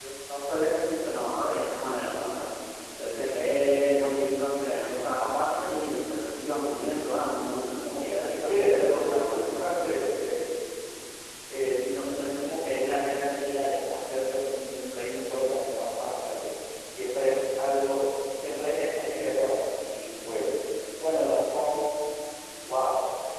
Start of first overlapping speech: 7.9 s

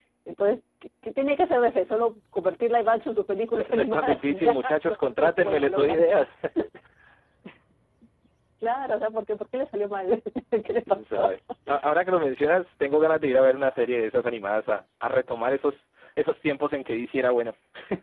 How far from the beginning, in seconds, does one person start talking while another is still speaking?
3.6 s

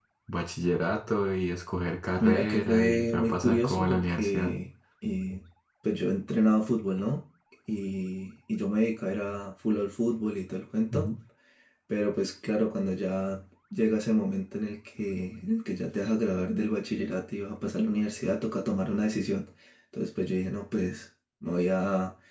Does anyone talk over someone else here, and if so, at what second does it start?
2.2 s

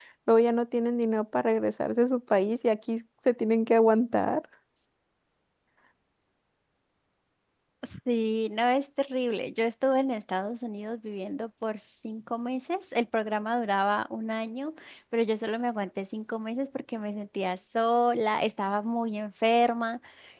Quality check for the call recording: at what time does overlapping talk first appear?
none

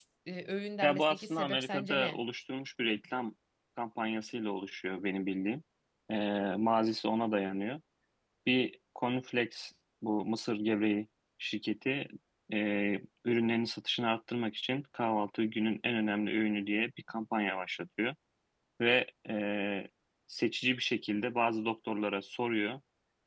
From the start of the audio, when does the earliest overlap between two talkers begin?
0.8 s

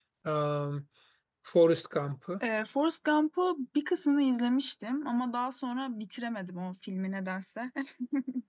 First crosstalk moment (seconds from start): none

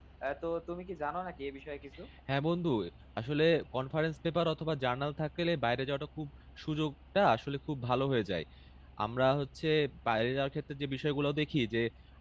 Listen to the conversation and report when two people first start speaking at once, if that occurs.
none

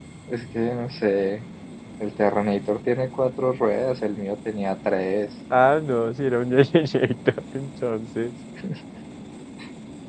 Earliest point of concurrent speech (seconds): none

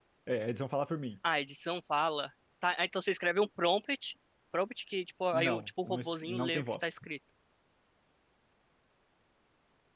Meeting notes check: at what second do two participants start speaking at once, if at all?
5.3 s

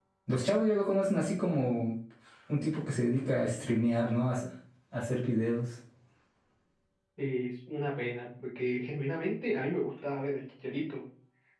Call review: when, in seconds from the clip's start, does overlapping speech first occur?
none

